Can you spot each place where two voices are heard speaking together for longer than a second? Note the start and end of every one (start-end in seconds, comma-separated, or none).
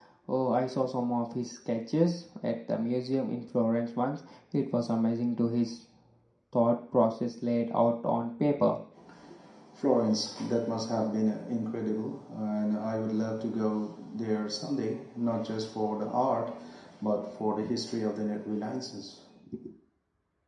none